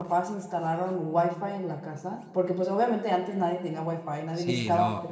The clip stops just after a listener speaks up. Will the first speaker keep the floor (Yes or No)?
No